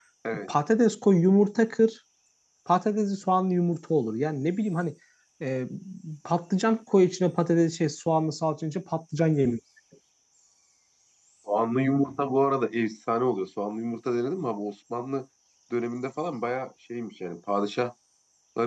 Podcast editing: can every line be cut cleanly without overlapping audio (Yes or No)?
Yes